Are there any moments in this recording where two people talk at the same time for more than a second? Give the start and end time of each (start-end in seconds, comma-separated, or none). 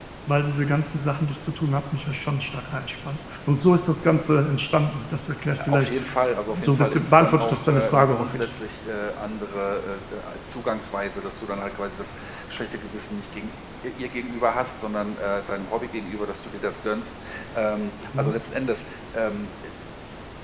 6.5-8.5